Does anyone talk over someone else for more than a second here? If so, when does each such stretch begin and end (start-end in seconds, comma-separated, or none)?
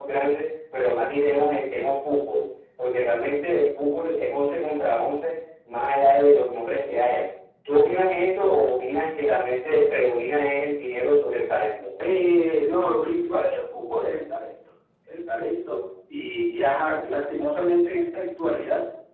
none